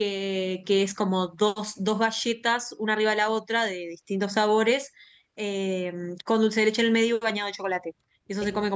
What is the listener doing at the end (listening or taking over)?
listening